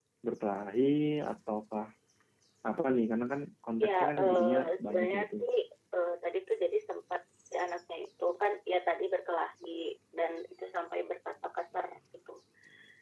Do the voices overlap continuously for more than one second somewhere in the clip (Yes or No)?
Yes